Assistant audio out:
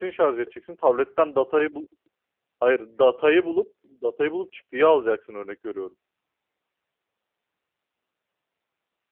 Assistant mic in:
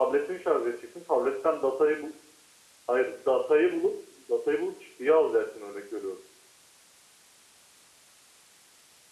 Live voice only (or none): none